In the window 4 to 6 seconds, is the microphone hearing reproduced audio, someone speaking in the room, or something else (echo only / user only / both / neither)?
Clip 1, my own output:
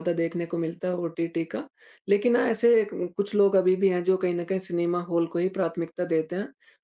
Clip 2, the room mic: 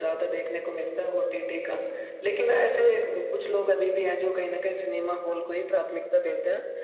echo only